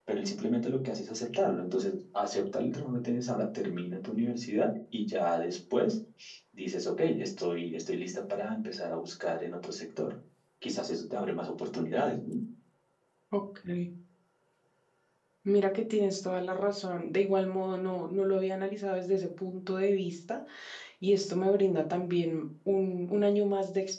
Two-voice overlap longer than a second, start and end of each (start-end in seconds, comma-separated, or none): none